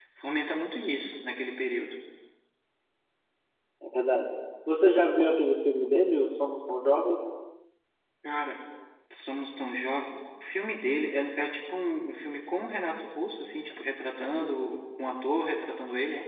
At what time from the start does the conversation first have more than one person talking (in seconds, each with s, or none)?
none